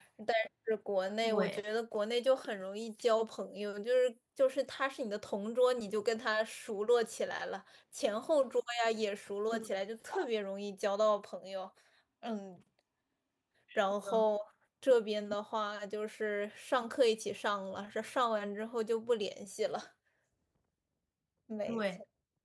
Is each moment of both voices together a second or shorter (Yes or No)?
Yes